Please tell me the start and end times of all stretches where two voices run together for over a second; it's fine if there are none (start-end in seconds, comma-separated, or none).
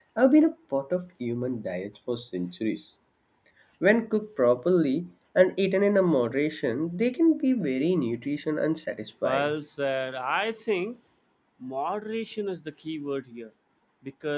none